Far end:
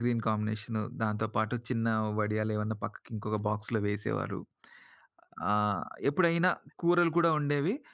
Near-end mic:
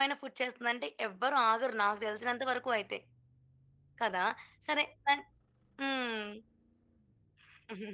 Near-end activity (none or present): present